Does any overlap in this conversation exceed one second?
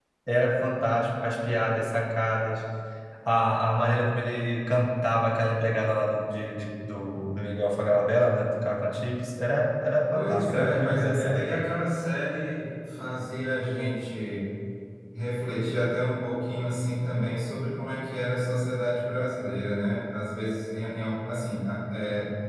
Yes, from 10.1 s

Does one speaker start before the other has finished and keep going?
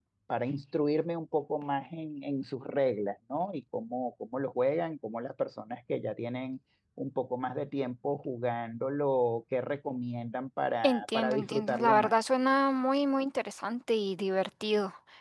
Yes, from 10.8 s

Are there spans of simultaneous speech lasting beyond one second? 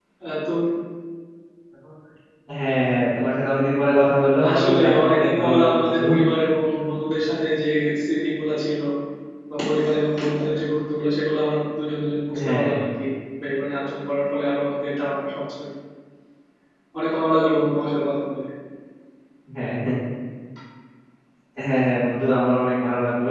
Yes, from 4.5 s

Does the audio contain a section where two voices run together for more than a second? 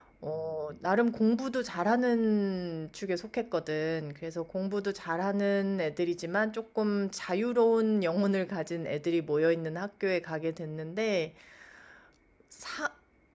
No

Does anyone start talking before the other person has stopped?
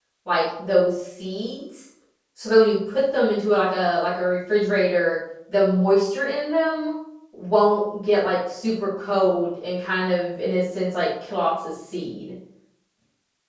No

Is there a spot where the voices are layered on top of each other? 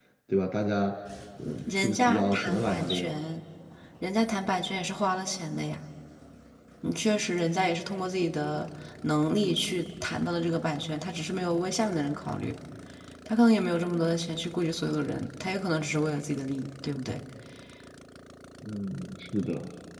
Yes, from 1.7 s

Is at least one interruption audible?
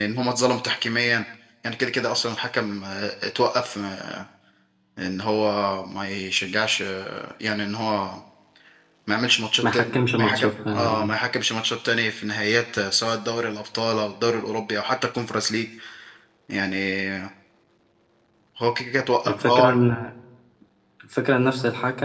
Yes, from 9.7 s

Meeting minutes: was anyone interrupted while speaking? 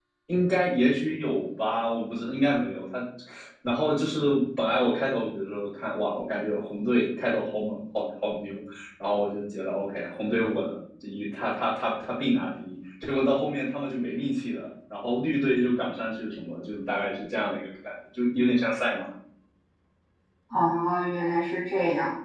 No

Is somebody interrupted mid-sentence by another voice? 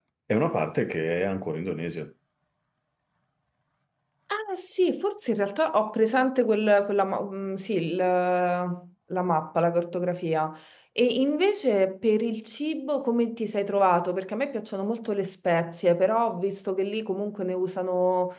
No

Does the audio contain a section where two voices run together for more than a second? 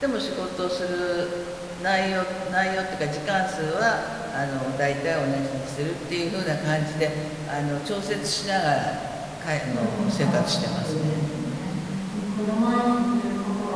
Yes, from 9.7 s

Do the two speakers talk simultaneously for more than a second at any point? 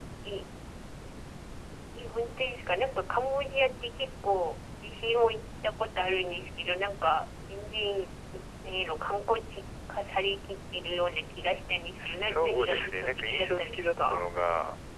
Yes, from 12.0 s

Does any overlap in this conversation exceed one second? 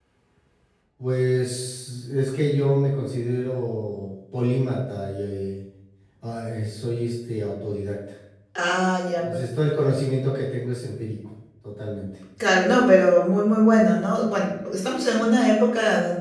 No

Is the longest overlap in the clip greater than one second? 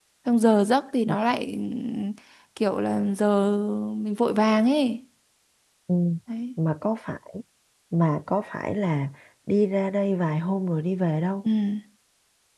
No

